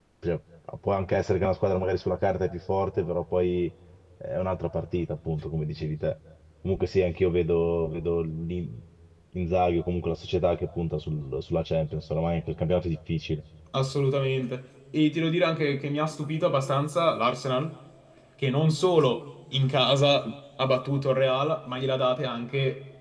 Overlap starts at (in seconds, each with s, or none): none